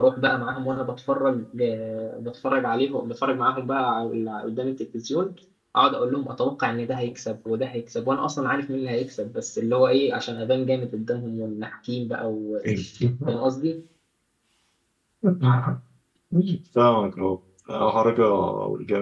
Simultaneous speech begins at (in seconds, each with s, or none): none